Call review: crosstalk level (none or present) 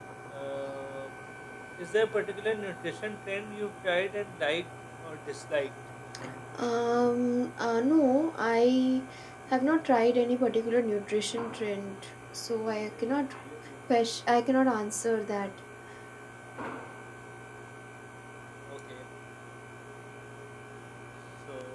none